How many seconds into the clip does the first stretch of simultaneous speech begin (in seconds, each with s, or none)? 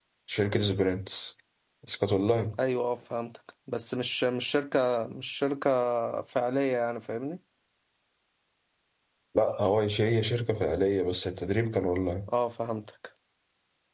none